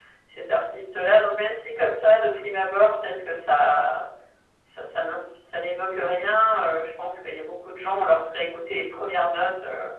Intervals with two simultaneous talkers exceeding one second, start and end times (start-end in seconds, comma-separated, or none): none